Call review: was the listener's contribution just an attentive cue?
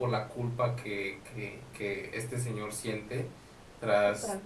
Yes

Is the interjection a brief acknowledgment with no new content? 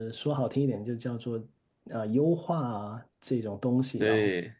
Yes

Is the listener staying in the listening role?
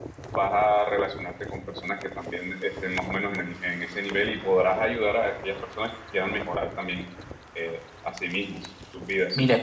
No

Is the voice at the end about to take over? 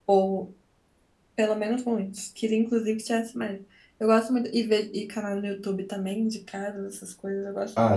Yes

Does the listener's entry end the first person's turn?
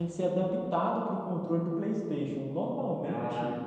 No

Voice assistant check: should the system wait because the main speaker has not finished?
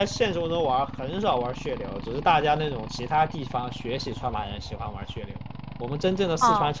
Yes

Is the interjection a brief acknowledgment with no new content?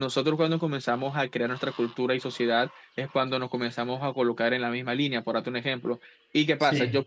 Yes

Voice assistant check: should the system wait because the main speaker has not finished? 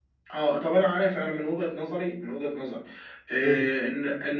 Yes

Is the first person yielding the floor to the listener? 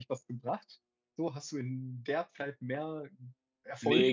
Yes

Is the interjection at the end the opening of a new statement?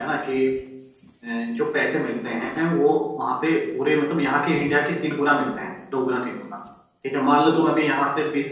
No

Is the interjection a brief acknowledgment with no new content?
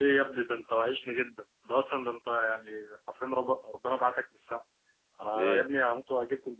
Yes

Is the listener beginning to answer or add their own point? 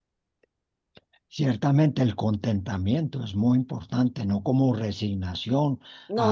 No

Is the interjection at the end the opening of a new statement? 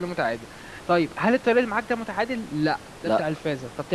No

